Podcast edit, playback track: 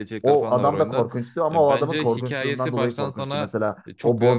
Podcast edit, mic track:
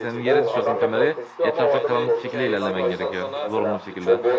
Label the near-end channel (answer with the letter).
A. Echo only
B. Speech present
B